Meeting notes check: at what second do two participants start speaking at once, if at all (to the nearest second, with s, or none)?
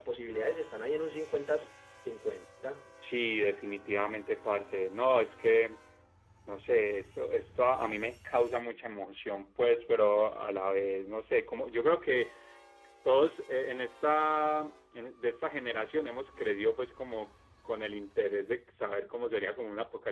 none